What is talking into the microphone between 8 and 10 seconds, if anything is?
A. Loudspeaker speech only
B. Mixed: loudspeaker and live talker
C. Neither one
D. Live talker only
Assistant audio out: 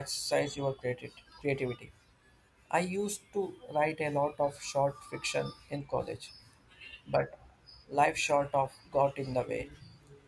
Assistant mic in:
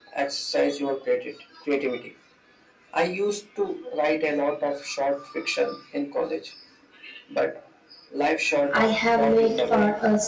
B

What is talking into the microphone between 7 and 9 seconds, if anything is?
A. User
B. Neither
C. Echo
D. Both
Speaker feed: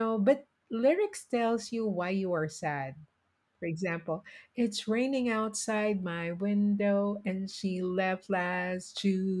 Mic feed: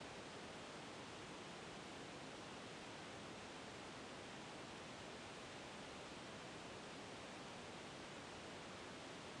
B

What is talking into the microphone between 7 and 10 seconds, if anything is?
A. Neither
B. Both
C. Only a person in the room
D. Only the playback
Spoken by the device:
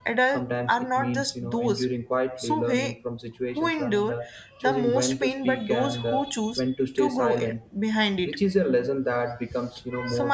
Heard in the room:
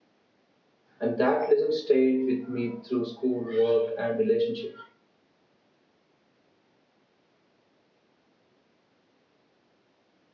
A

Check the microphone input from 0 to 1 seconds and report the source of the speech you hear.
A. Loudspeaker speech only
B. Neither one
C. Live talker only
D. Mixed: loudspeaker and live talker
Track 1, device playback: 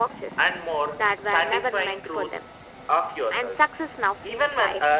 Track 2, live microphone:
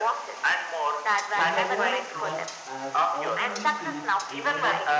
A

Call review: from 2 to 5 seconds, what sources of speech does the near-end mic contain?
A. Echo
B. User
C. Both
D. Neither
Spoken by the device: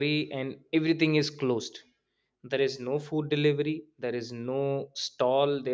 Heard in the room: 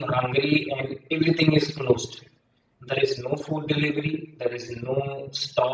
A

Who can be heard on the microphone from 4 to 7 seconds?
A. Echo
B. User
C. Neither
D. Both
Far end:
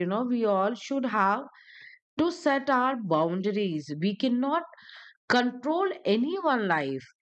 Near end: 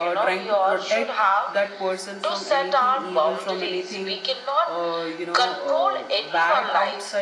D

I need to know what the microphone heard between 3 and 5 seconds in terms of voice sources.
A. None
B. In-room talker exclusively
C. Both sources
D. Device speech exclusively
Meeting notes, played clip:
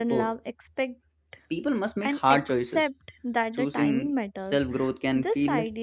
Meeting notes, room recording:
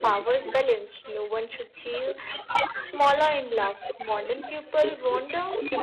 C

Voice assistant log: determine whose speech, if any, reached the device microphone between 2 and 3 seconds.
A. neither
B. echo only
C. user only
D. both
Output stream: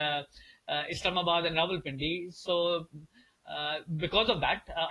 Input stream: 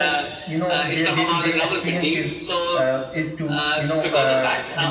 D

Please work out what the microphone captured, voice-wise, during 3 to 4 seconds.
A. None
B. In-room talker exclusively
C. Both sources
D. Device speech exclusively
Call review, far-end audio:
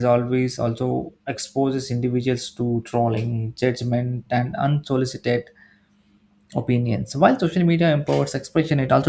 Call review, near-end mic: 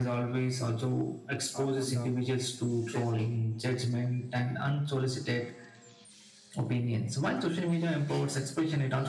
C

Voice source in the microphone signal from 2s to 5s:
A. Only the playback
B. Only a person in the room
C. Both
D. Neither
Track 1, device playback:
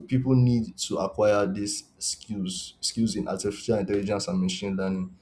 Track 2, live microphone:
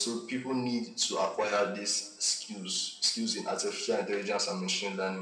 A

